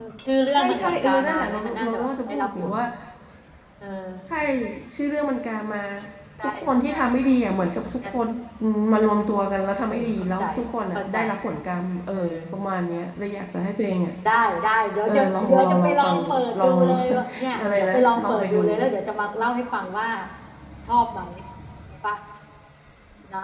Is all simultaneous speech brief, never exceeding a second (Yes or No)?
No